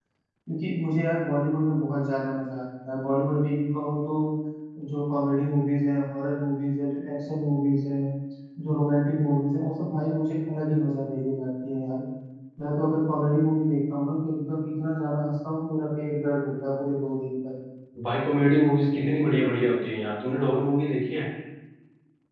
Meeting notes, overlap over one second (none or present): none